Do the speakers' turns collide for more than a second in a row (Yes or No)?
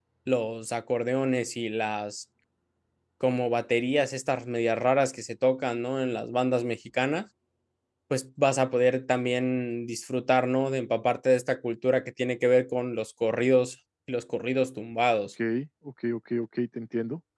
No